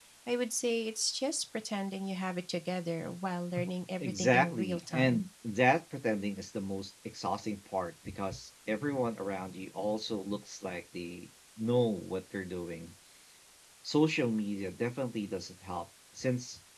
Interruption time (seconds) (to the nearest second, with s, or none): 4 s